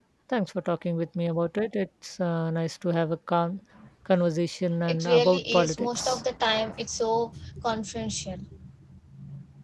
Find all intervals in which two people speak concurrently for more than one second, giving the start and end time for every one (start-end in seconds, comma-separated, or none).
4.9-6.2